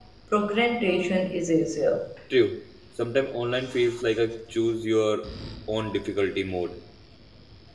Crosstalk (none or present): none